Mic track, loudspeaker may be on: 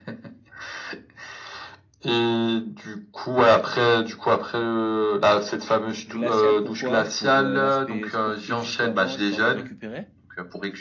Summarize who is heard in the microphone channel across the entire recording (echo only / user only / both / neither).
both